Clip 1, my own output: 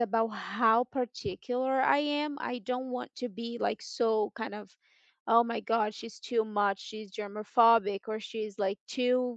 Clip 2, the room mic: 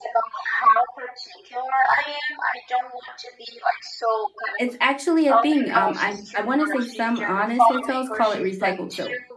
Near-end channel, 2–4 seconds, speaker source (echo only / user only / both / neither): echo only